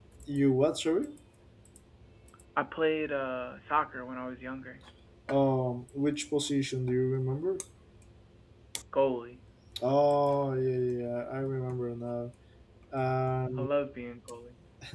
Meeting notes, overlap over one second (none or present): none